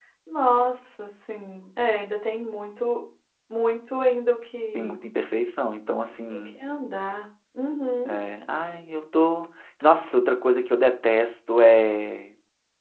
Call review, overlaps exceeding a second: none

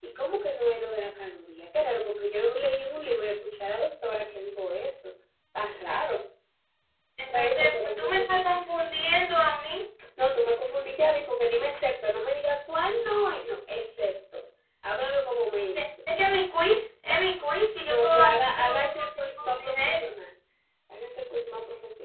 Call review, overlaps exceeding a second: present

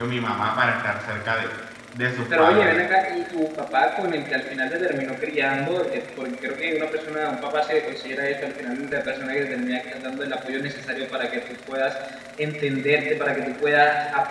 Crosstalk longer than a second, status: none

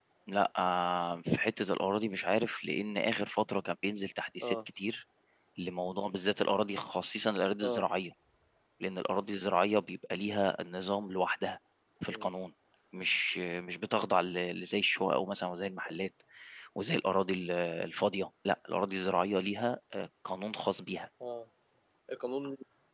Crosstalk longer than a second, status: none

